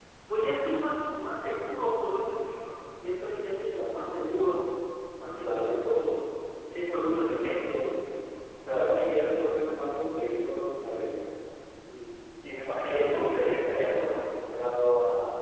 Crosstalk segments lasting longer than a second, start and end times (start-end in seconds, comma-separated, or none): 12.9-14.1